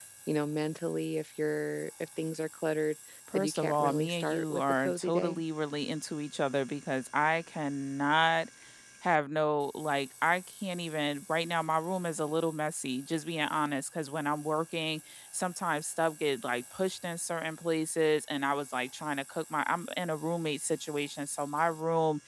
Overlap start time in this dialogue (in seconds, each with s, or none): 3.3 s